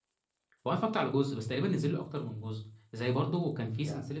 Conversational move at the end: listening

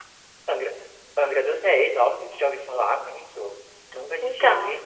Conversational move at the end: listening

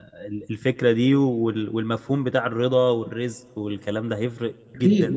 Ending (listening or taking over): taking over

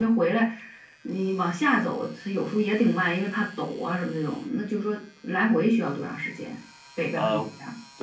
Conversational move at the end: taking over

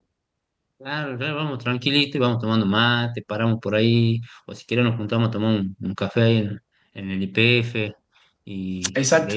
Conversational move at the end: taking over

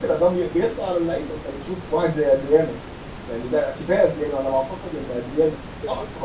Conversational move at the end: listening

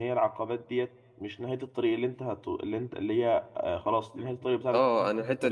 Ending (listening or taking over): taking over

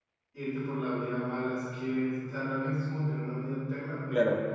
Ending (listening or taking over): taking over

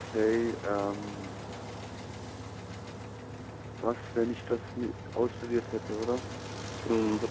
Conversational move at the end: taking over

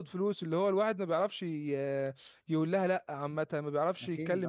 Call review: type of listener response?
listening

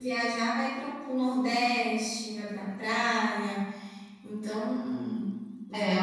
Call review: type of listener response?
taking over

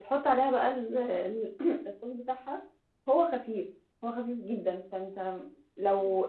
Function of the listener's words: listening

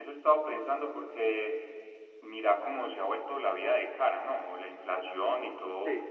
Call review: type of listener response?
listening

